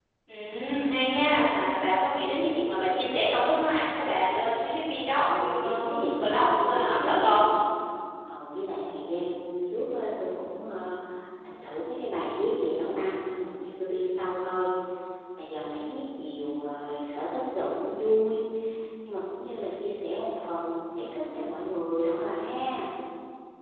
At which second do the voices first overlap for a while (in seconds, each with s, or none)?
5.1 s